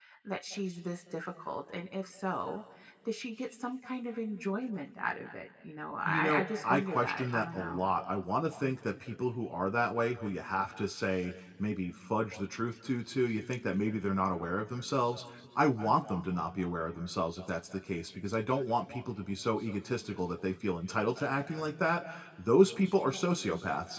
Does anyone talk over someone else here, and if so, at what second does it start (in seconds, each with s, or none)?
6.0 s